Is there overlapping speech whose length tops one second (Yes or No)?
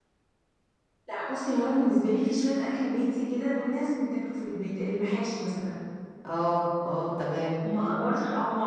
No